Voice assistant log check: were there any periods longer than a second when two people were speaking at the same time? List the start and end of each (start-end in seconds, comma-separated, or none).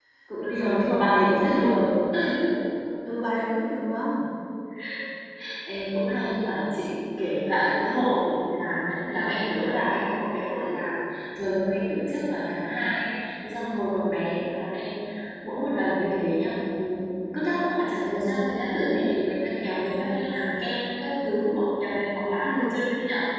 0.5-1.8